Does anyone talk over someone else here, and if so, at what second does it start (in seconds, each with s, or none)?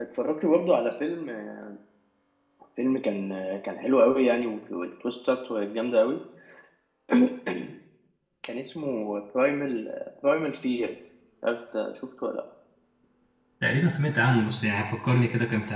none